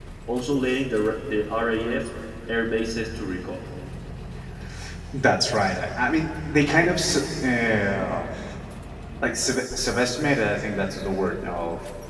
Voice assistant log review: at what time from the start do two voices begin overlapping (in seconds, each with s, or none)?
none